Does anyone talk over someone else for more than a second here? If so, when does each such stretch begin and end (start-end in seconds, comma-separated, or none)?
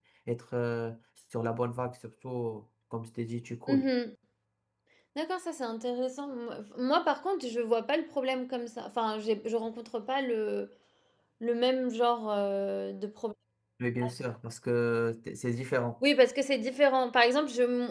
none